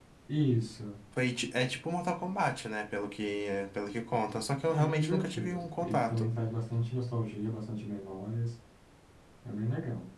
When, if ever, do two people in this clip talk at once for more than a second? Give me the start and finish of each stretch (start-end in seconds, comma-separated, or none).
4.7-6.3